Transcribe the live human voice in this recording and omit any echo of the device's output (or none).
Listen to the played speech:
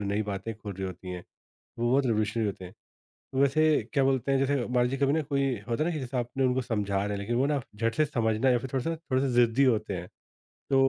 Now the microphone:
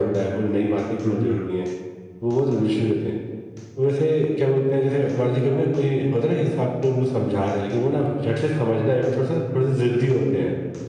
हुँ, हुँ,